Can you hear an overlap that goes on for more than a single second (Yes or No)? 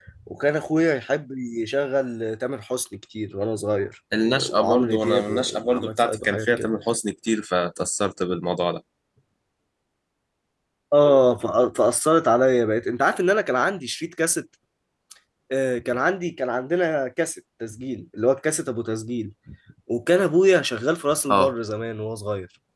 Yes